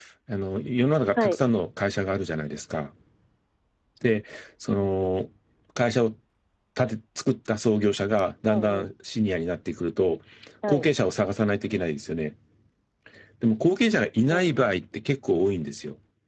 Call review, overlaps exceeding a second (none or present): none